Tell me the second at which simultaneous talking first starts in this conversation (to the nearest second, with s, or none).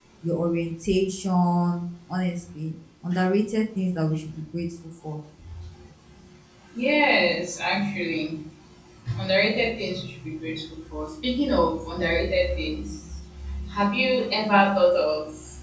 none